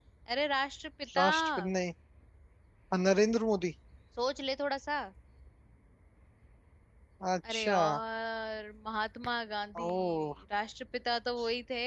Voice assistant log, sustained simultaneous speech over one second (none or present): none